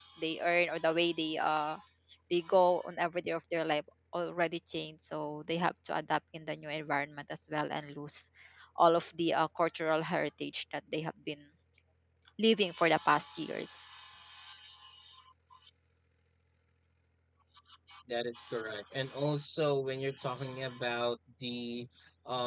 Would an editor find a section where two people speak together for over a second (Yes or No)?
No